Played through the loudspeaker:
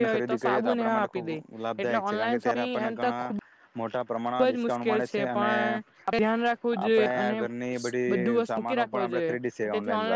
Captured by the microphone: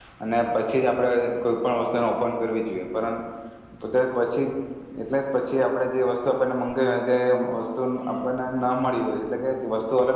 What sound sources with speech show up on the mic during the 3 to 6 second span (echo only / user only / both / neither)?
user only